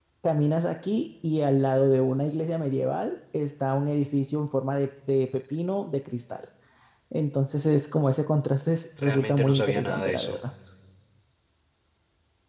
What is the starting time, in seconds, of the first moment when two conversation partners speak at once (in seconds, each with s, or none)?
9.0 s